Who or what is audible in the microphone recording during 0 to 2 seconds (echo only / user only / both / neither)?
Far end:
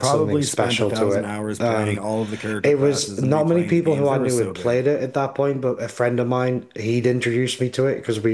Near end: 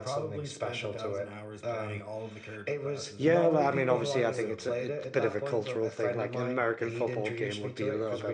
echo only